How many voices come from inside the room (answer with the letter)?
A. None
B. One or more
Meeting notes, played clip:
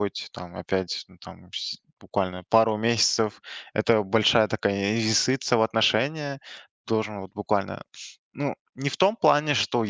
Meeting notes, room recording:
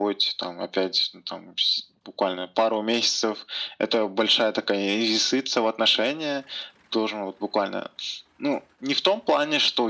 A